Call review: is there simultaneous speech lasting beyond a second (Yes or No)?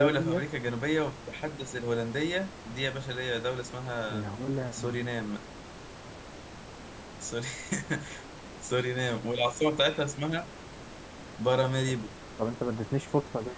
No